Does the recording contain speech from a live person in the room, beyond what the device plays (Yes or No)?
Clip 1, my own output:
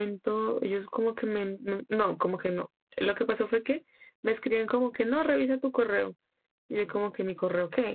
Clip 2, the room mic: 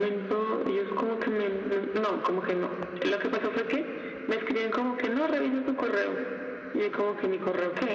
No